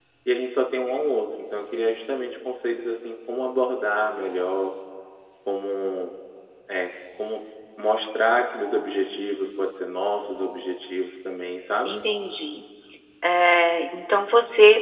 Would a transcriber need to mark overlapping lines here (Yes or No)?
No